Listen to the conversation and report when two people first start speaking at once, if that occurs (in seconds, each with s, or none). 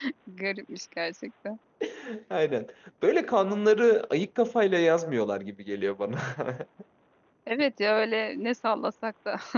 none